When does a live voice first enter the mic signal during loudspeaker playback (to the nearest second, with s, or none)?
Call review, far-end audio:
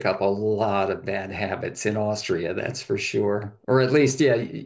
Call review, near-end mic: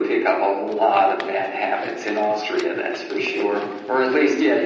none